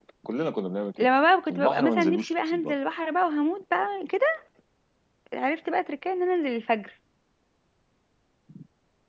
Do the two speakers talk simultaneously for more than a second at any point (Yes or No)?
Yes